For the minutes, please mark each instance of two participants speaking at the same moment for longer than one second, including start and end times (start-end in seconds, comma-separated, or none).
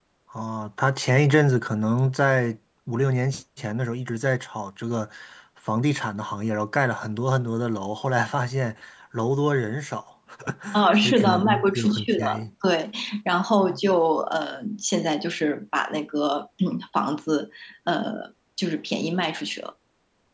10.9-12.4